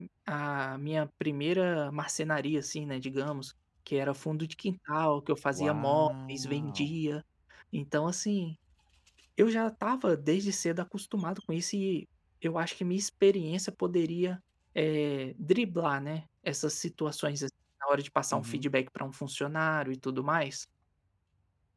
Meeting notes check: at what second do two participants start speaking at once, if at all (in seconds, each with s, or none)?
5.5 s